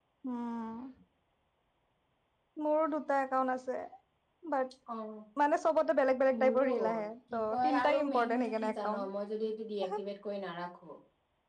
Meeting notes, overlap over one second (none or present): present